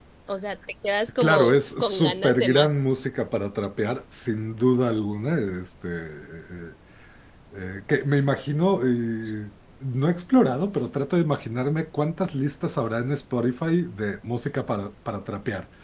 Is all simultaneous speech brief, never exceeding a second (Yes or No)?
No